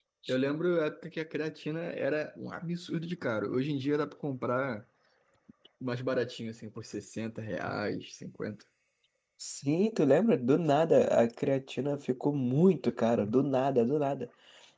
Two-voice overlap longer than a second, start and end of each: none

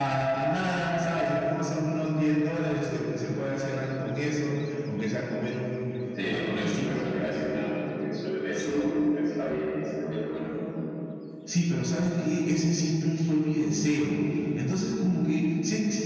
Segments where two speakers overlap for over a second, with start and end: 6.2-7.6

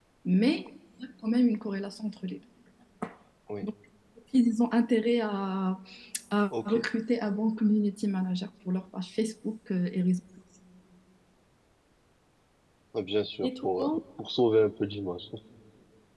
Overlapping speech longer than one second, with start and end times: none

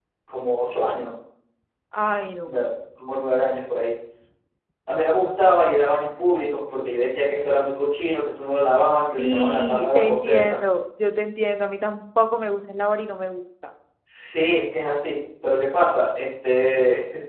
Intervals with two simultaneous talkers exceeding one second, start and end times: 9.2-10.6

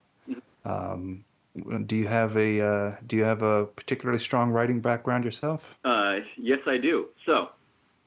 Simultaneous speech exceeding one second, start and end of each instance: none

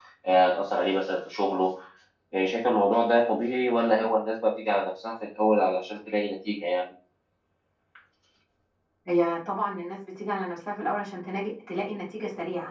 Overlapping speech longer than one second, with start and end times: none

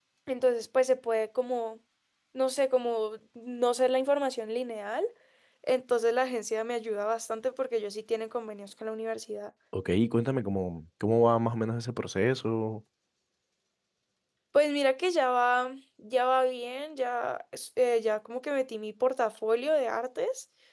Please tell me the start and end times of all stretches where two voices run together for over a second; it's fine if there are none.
none

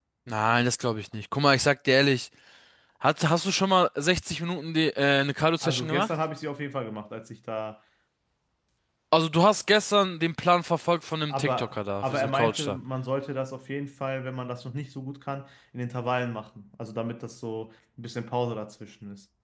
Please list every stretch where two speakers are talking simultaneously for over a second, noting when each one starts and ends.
11.3-12.8

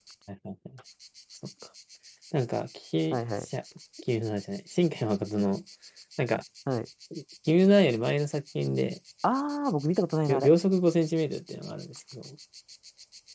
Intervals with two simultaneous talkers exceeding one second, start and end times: none

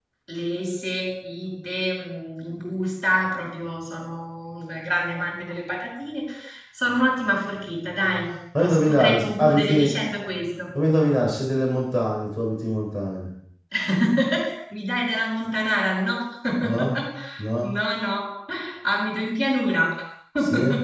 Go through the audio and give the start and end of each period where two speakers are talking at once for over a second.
8.6-9.9

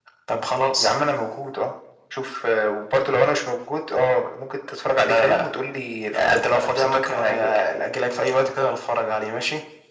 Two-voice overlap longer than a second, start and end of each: 6.1-7.6

